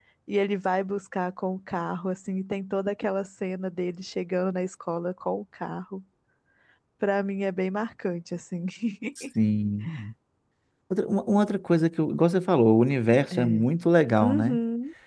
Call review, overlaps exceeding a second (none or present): none